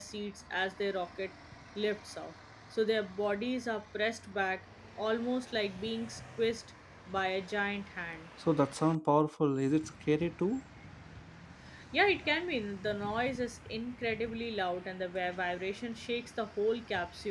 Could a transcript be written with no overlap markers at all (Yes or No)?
Yes